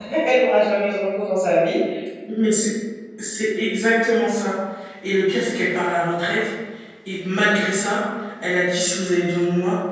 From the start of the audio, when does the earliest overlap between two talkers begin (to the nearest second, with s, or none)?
none